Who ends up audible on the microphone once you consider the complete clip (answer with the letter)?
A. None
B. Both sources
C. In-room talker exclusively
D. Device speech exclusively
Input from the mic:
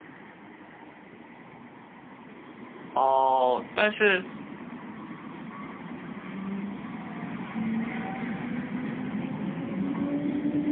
C